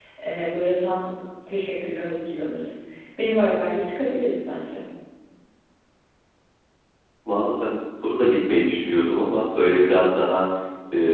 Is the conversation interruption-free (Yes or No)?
Yes